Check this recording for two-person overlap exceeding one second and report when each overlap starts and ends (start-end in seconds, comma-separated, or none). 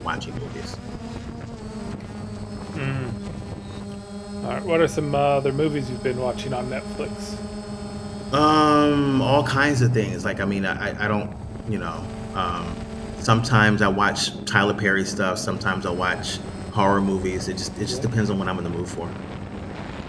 none